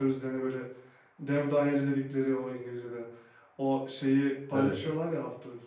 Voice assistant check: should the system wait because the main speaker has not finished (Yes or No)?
Yes